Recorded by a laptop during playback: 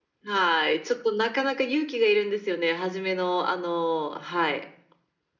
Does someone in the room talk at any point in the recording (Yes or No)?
No